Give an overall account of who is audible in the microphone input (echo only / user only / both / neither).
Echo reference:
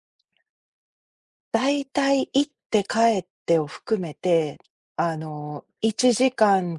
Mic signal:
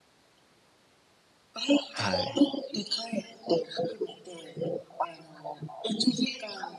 both